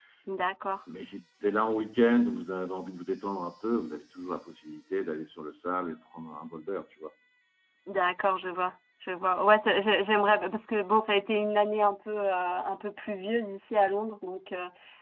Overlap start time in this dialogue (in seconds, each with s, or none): none